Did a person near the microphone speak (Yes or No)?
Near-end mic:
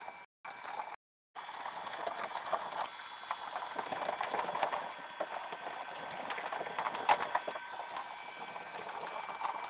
No